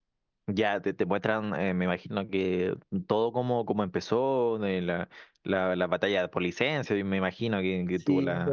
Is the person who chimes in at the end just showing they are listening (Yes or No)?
No